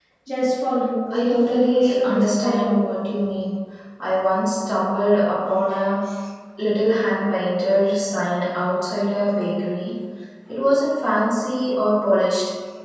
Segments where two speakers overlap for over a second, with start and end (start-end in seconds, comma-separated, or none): 1.1-2.8